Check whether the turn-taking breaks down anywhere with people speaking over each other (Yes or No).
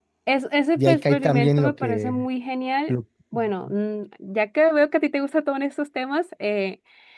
Yes